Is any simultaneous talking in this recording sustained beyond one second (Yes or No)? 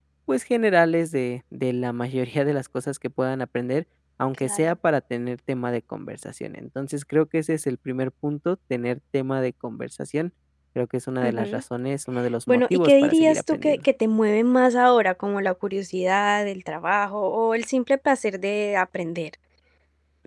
Yes